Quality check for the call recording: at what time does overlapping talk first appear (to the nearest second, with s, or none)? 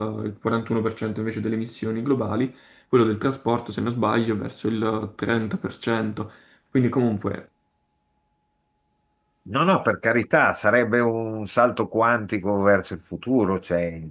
none